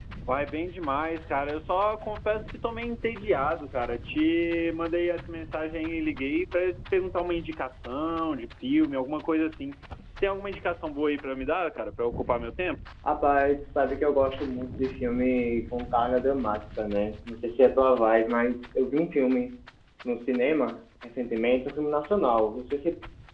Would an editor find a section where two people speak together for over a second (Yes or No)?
No